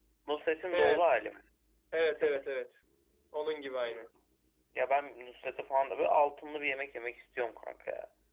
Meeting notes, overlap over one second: none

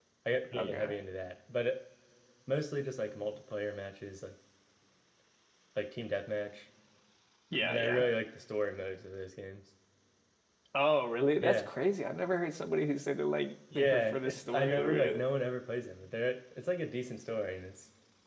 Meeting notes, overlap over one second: present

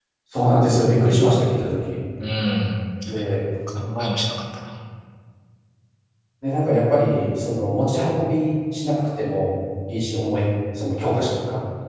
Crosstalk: none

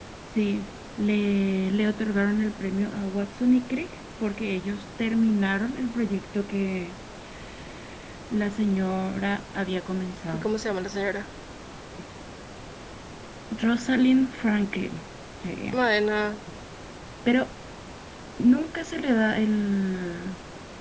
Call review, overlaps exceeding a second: none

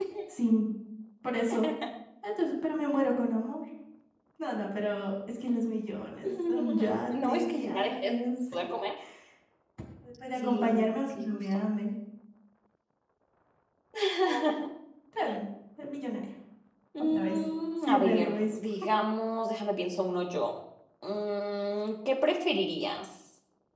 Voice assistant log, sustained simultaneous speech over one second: present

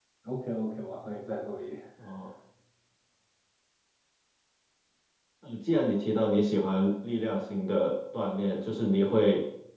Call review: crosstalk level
none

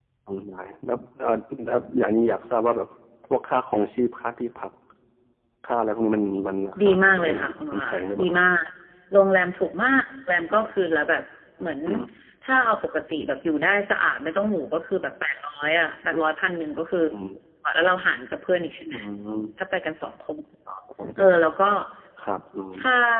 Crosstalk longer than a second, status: present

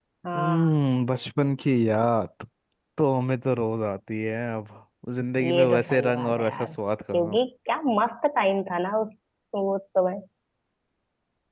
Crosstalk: present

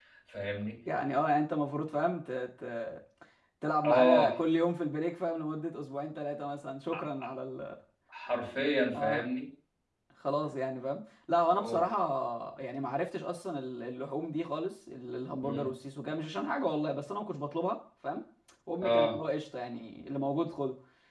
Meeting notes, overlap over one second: none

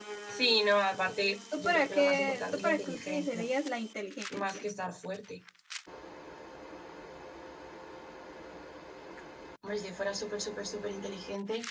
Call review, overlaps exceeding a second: present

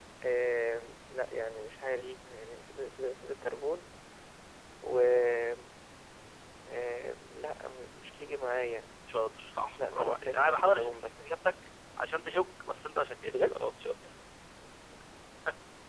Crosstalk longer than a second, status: present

